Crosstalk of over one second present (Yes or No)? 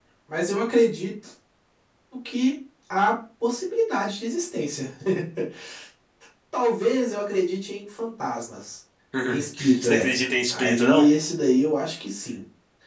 Yes